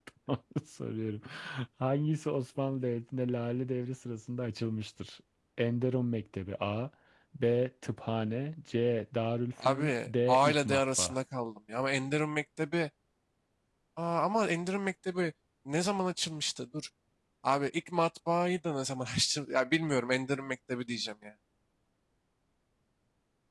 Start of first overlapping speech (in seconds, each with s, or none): 9.6 s